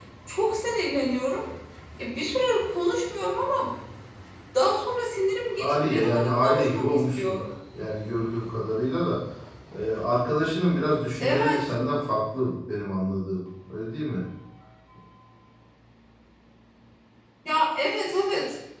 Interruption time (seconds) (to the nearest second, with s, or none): 6 s